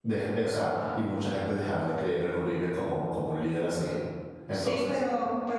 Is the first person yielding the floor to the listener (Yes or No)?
Yes